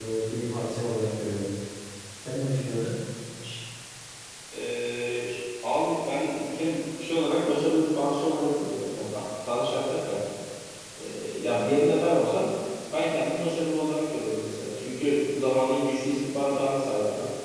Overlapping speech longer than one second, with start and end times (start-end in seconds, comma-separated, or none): none